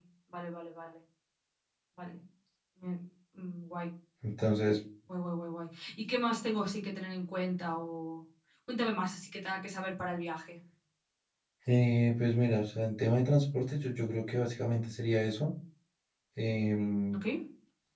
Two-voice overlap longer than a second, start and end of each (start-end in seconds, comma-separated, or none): none